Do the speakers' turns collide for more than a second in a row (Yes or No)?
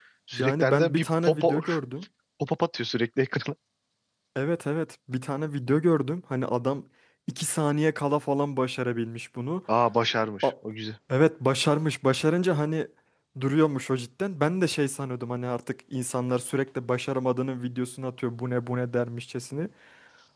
Yes